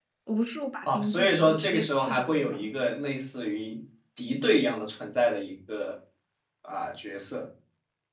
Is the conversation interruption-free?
No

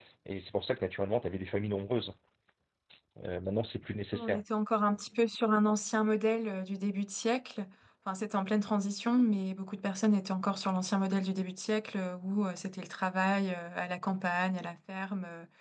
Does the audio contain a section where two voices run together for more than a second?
No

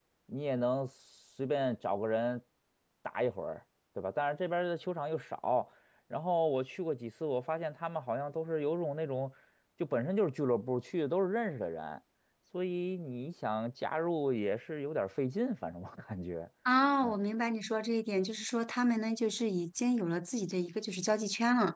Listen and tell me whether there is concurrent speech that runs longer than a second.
No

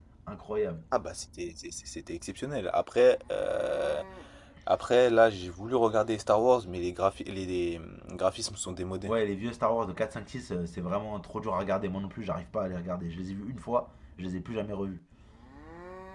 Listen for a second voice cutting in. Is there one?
No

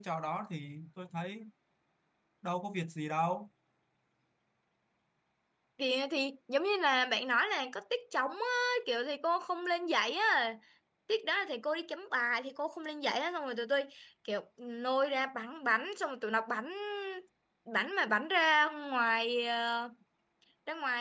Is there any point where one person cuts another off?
No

